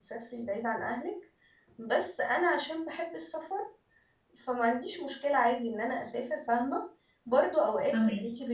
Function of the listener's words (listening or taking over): listening